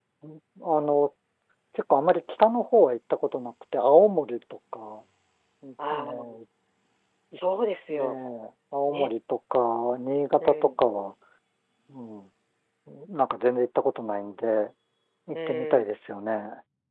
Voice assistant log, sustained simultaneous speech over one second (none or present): none